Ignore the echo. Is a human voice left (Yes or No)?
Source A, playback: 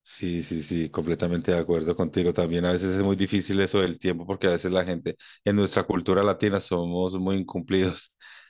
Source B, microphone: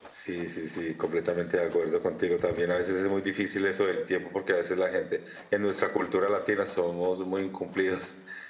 No